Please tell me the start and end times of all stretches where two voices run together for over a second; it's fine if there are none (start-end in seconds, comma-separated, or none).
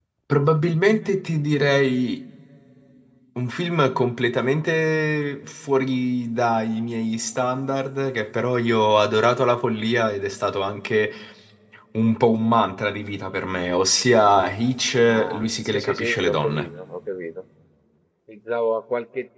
15.0-16.7